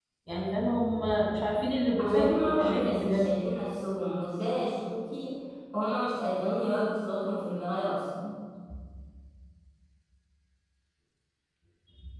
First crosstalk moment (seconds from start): 2.0 s

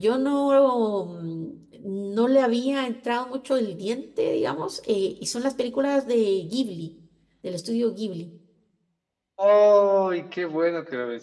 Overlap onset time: none

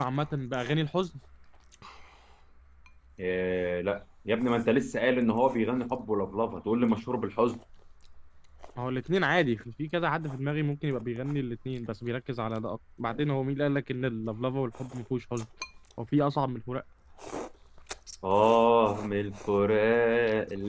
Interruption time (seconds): none

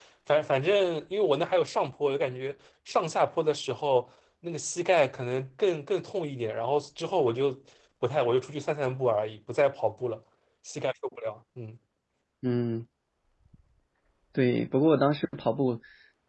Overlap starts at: none

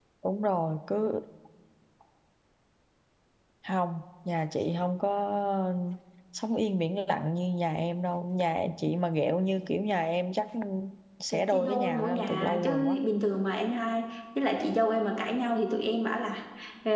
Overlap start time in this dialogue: 11.3 s

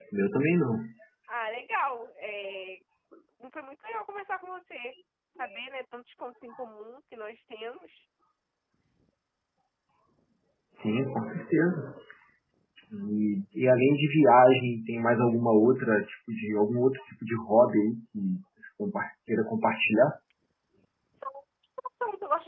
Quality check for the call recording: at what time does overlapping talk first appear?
none

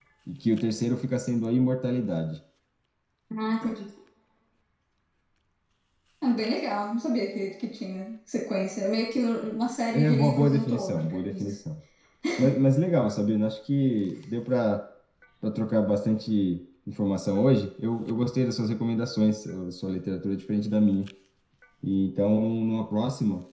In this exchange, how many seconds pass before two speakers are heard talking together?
9.9 s

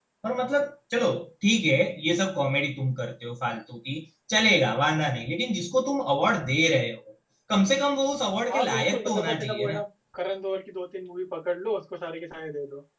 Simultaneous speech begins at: 8.5 s

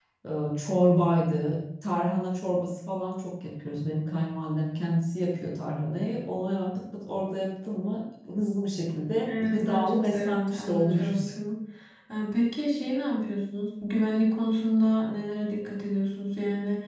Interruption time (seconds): 9.2 s

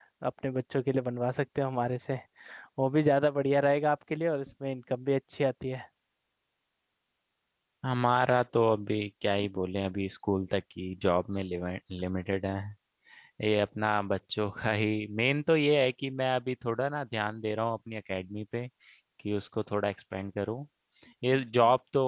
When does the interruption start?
none

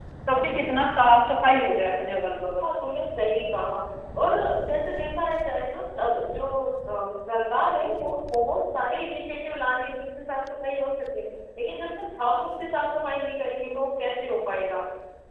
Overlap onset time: none

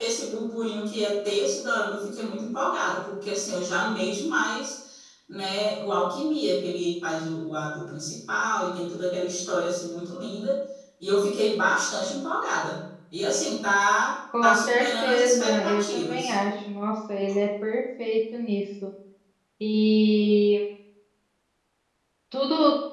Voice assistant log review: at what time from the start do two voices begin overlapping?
14.3 s

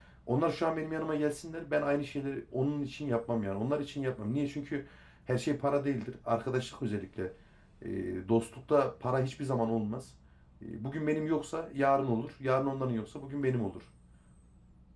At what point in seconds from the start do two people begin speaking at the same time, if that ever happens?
none

